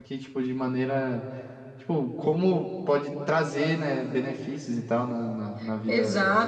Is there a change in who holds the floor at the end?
Yes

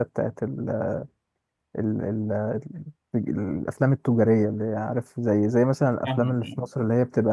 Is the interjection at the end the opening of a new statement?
No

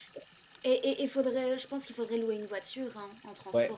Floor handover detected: Yes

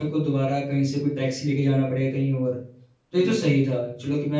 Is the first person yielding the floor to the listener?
No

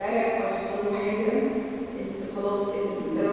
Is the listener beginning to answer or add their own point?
No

